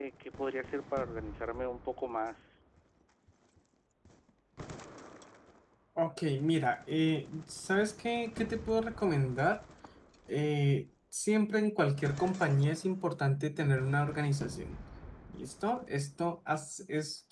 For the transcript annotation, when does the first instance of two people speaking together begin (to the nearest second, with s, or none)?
none